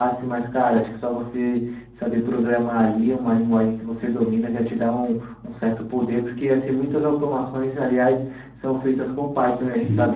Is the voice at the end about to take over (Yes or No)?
No